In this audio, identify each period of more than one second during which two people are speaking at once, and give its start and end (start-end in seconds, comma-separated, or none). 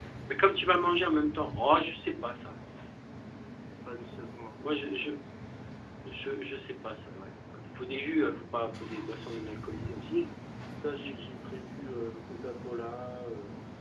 none